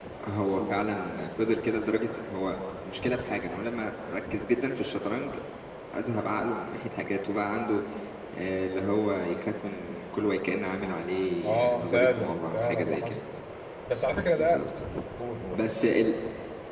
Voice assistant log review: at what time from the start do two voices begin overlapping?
11.4 s

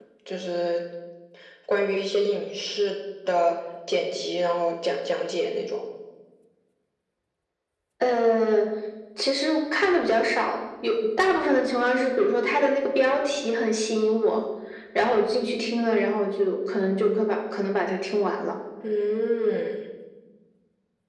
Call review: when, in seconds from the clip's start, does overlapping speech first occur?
none

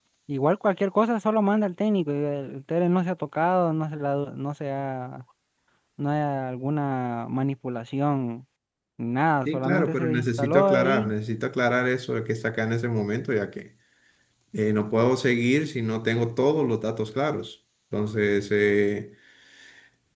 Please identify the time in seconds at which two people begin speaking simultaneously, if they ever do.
9.4 s

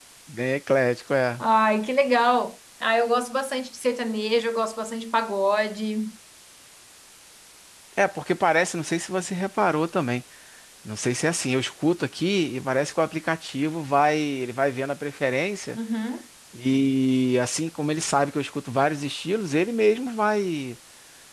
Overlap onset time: none

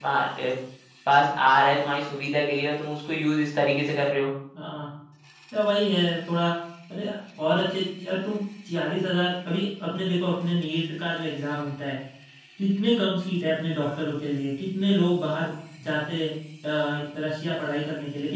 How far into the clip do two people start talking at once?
none

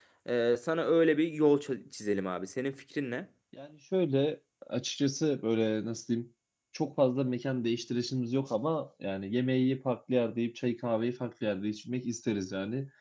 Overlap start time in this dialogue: none

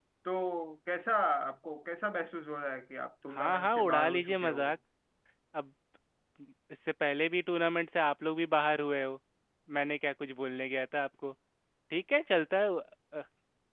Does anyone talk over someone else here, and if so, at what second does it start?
3.3 s

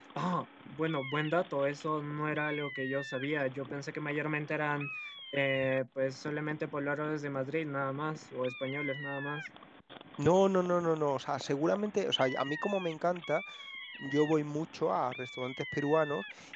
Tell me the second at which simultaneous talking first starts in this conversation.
none

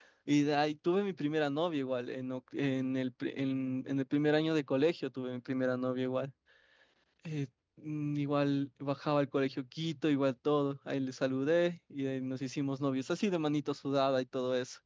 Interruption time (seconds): none

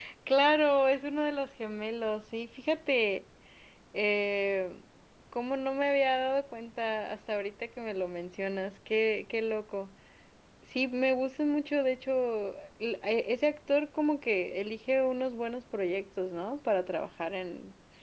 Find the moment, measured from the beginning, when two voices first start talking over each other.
none

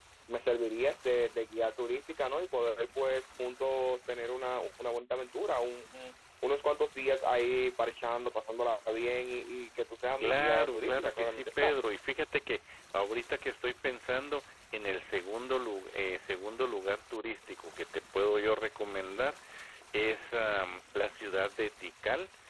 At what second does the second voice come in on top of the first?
10.2 s

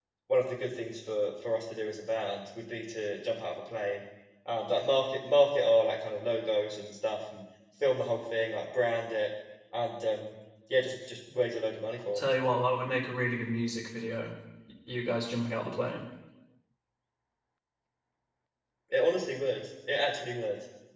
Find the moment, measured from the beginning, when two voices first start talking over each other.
none

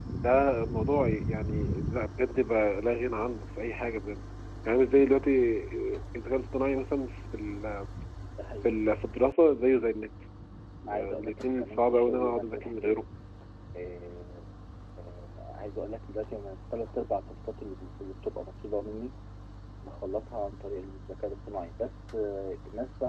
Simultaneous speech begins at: 10.9 s

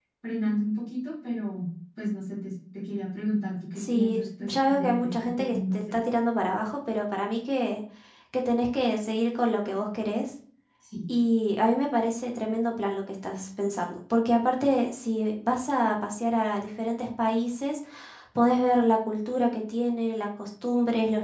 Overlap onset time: 3.8 s

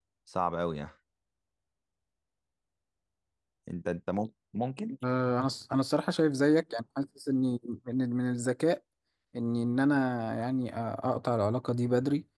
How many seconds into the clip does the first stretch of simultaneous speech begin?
none

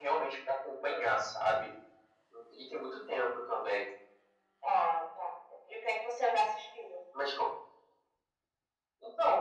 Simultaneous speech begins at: none

